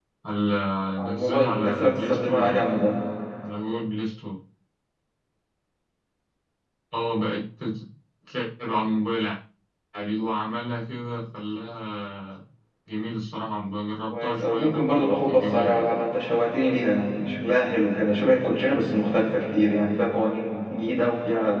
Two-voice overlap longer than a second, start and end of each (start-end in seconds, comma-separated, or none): 1.0-2.7, 14.1-15.9